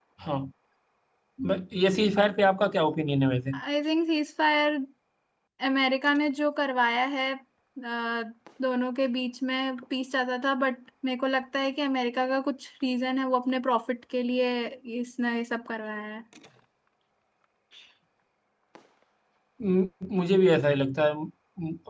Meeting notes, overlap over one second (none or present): none